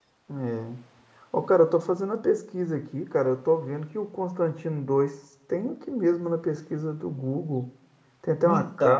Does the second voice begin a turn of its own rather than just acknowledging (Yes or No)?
No